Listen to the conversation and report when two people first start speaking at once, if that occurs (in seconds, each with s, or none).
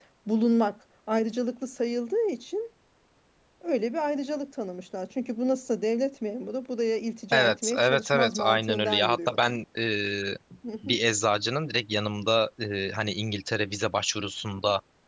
7.3 s